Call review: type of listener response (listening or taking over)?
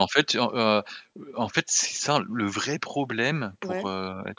listening